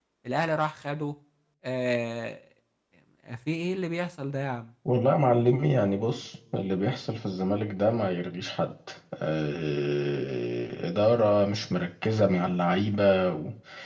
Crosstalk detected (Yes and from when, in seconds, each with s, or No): No